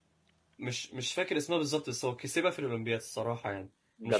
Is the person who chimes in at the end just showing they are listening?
No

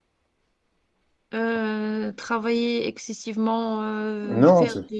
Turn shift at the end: No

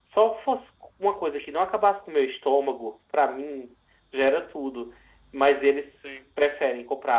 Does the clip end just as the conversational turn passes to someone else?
No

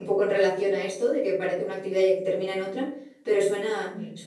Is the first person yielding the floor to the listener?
Yes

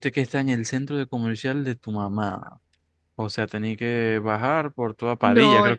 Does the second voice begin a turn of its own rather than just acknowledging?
Yes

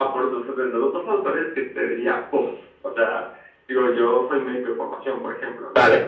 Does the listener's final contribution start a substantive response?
No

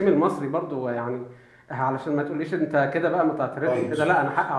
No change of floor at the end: No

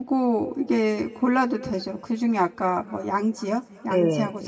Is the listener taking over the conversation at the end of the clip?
Yes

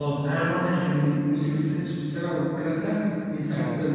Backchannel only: Yes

